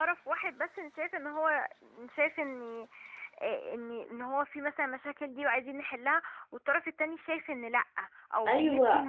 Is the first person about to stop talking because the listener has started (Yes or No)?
Yes